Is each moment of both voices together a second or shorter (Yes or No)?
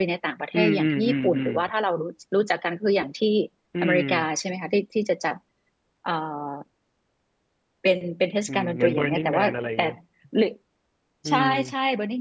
No